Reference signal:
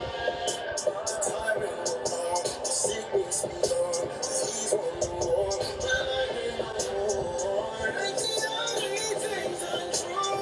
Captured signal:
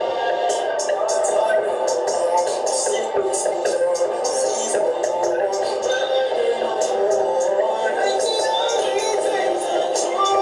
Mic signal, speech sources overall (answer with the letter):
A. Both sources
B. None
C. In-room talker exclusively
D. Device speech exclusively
D